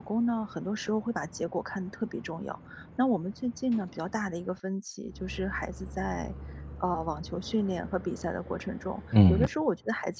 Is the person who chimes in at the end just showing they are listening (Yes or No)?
Yes